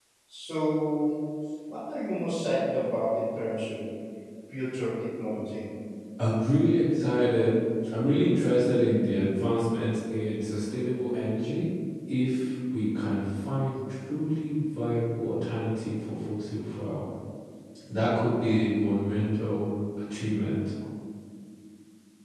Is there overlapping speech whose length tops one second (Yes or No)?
No